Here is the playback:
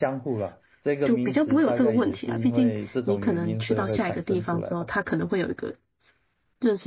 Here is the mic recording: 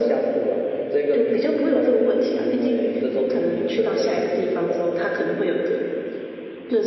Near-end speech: none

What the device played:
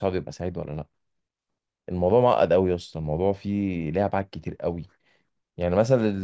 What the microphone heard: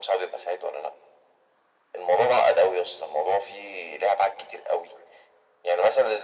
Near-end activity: none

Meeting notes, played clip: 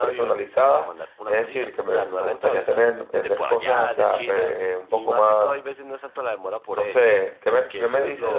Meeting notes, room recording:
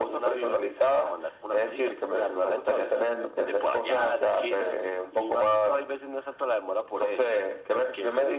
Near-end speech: none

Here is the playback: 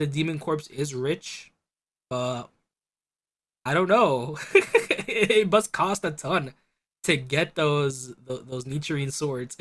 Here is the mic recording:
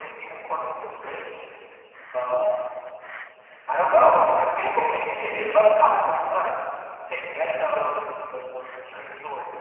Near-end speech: none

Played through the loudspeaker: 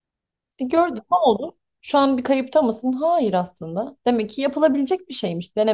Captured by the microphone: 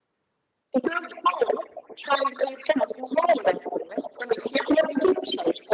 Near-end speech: none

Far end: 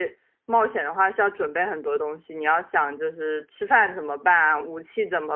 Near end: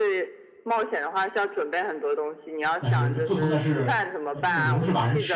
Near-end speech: present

